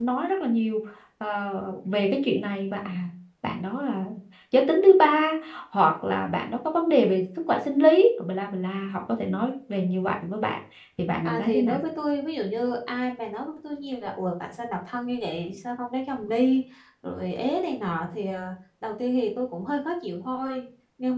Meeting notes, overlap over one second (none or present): none